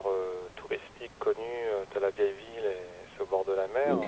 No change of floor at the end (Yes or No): Yes